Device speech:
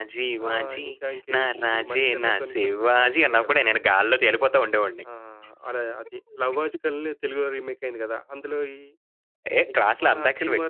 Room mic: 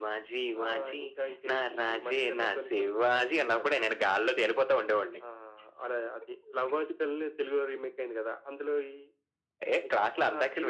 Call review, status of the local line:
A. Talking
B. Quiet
B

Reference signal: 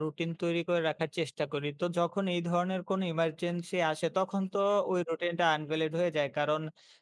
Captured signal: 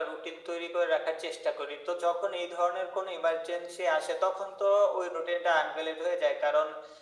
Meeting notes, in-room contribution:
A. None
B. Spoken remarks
A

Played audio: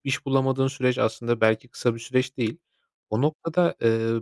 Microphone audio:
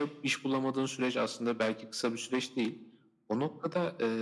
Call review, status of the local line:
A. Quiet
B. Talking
A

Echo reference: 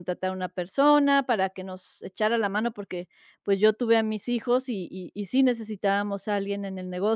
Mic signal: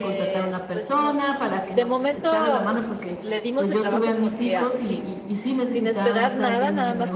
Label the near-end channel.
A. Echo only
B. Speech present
B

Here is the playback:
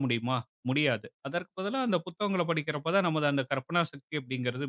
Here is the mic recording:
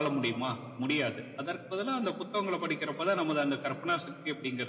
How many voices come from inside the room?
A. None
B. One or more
A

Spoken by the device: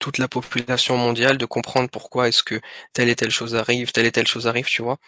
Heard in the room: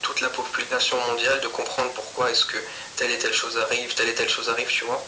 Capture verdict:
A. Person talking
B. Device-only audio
B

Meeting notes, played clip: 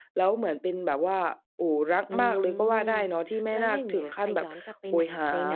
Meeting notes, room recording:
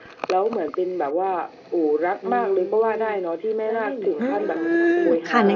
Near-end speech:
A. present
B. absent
A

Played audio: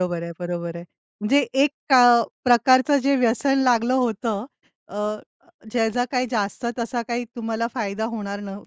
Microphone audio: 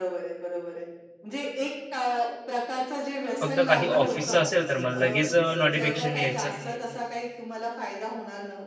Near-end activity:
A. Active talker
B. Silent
A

